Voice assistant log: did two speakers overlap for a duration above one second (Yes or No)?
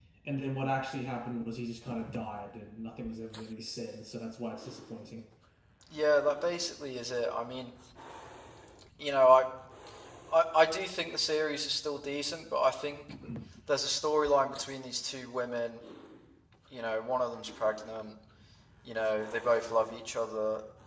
No